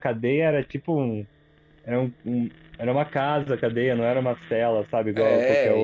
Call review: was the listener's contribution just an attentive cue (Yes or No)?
No